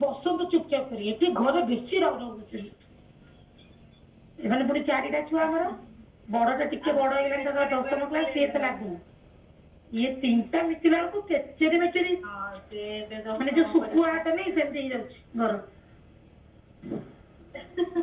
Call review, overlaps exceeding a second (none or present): present